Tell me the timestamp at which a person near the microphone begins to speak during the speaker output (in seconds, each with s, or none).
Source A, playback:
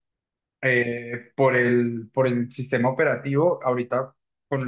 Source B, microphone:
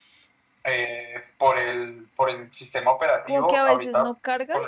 3.2 s